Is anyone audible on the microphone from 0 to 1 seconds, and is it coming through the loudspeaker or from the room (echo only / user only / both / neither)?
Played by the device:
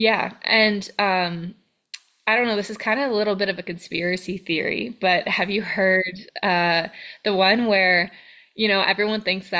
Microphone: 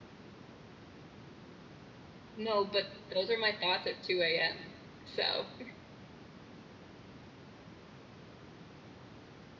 neither